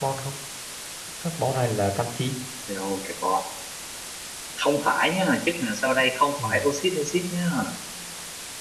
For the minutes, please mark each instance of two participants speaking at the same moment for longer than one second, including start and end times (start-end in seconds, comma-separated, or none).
none